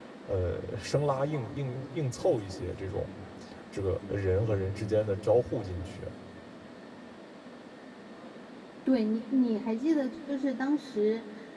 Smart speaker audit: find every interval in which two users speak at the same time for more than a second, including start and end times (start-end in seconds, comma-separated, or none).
none